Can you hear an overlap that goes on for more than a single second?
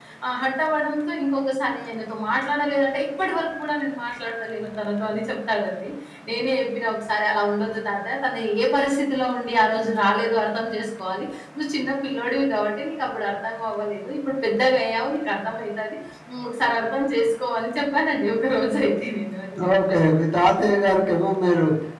No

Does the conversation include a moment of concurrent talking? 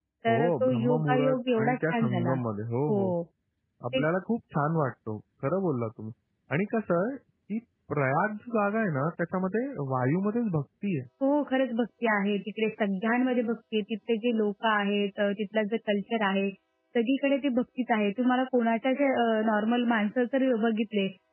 Yes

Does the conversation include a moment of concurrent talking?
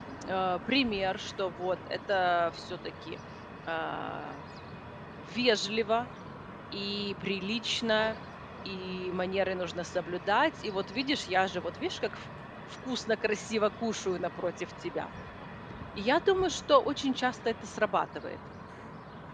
No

